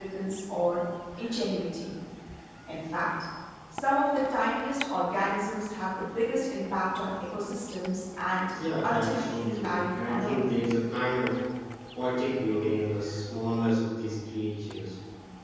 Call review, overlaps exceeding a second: present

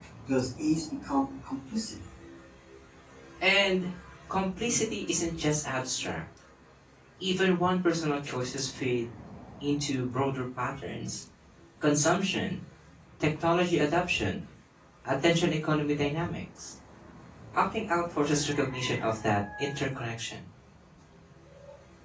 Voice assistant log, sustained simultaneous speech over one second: none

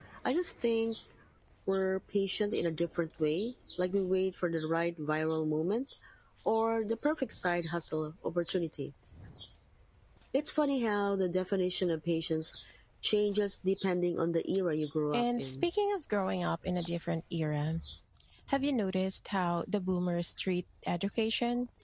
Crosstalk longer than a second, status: none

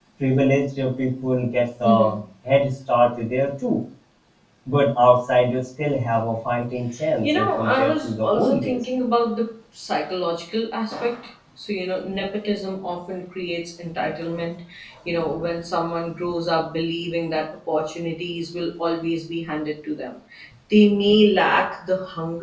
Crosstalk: present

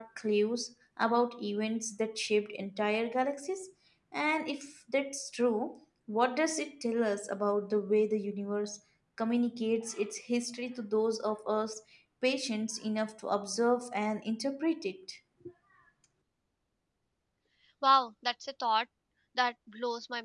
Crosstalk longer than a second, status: none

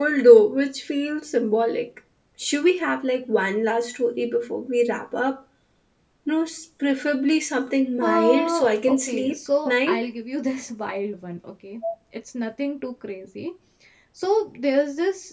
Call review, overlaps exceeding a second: present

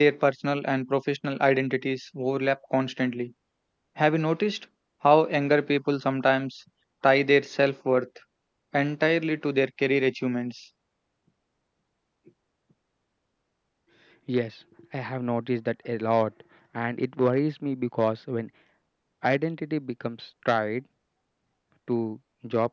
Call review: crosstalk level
none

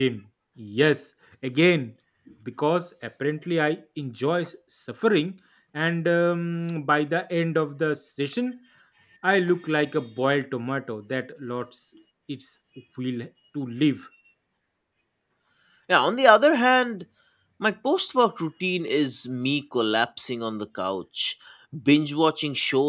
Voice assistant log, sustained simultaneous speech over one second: none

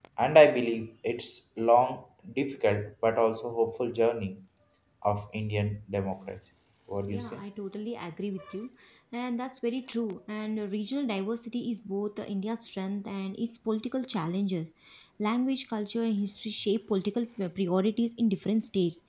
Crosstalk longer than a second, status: none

